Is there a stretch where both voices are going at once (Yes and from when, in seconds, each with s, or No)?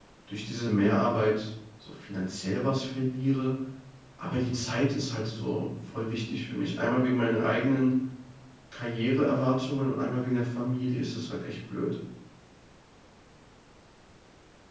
No